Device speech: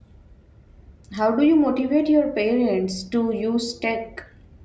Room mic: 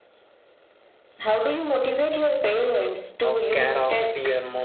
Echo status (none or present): present